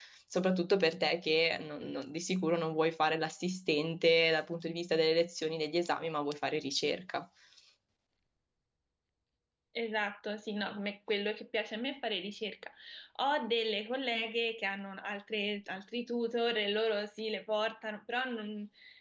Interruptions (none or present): none